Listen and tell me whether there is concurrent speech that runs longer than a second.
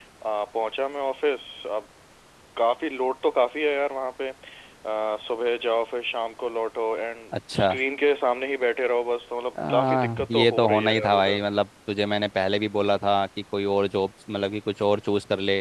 Yes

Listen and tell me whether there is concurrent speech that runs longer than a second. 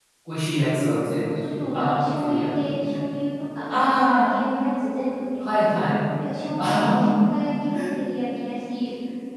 Yes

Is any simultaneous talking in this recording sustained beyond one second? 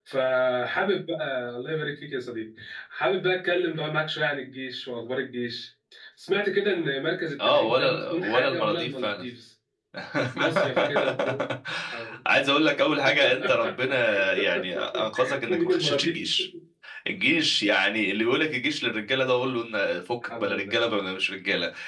Yes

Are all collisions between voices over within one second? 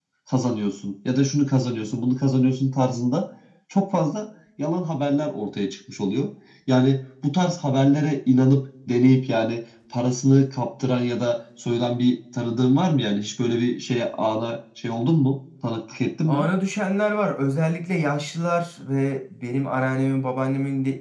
Yes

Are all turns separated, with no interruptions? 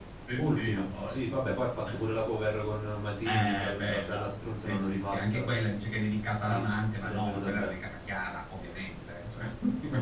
No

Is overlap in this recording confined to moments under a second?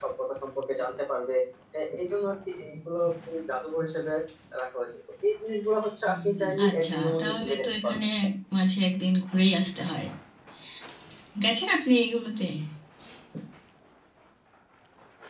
No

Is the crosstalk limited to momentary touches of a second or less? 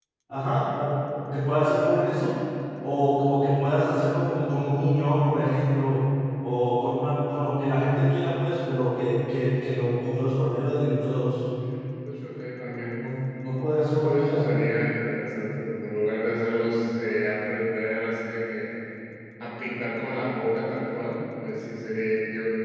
Yes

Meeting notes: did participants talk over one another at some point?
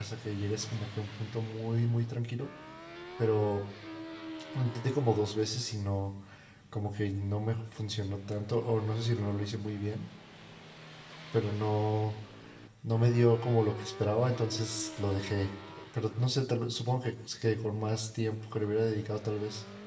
No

